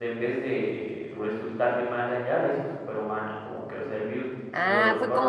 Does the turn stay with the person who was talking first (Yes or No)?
No